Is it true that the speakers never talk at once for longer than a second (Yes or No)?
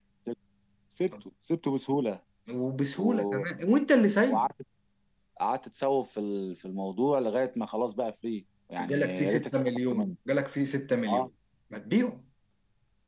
No